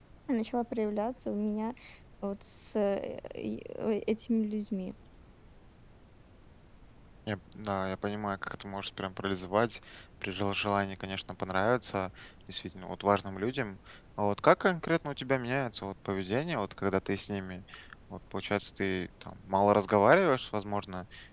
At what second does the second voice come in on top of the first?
none

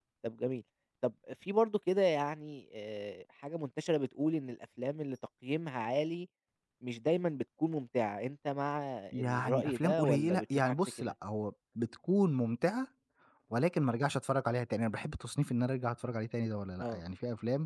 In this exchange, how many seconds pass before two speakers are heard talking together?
9.1 s

